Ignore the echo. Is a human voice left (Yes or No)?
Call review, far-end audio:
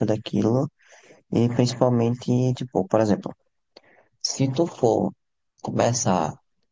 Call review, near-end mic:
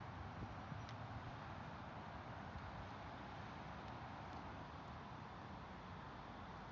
No